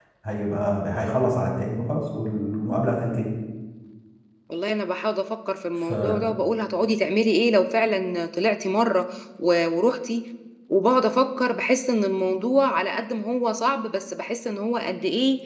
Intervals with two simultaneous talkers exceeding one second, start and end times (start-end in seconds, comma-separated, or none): none